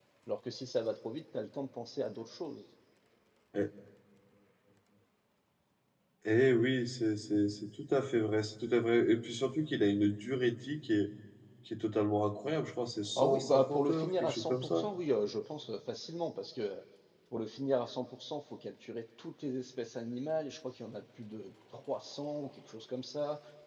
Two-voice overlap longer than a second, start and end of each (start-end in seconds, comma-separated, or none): 13.2-14.9